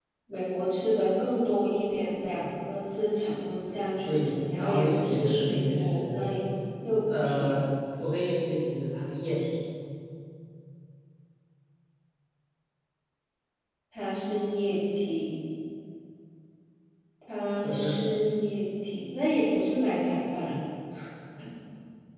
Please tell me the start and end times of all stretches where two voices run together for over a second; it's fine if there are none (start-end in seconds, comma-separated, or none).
4.1-6.3